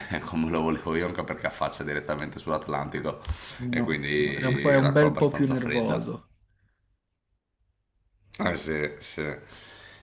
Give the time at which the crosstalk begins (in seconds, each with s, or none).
3.7 s